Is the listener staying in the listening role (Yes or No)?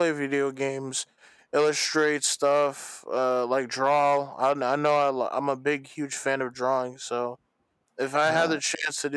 Yes